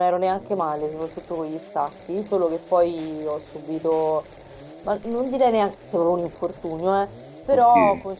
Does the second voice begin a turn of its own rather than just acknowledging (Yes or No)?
No